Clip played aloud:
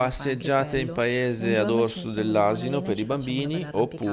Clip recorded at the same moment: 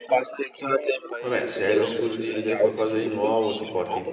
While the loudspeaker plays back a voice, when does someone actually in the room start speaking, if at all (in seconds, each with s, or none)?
1.2 s